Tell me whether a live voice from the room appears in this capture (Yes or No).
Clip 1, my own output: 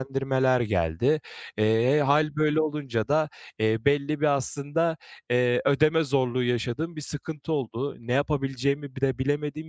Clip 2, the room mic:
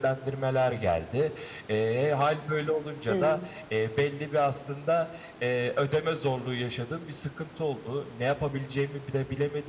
Yes